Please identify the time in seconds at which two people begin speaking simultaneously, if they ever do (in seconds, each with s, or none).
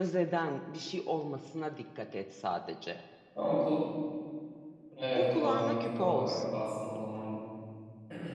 5.1 s